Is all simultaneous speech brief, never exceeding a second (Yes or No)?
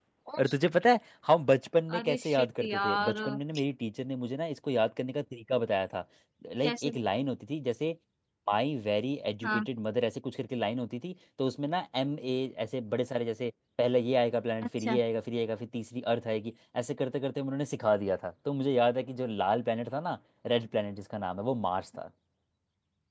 No